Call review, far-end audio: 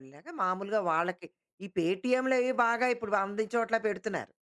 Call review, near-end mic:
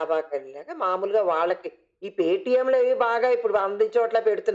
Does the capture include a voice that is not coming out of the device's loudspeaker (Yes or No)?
No